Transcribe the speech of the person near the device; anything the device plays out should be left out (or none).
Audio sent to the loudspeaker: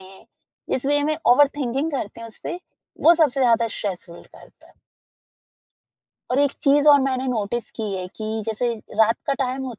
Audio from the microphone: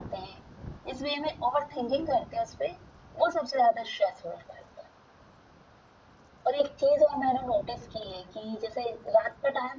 none